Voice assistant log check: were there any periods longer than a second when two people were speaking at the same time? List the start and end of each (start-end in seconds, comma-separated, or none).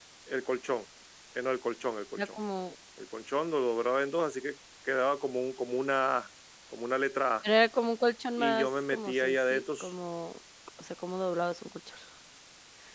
8.4-9.9